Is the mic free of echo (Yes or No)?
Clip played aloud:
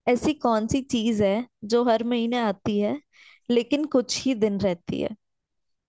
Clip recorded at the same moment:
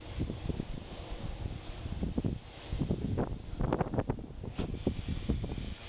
Yes